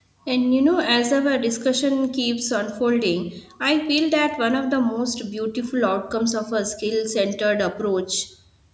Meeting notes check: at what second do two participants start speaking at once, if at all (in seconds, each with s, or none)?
none